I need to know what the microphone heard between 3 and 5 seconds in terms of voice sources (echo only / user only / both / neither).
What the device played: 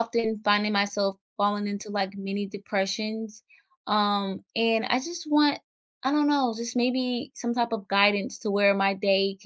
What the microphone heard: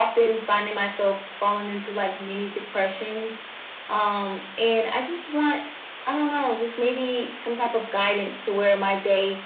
echo only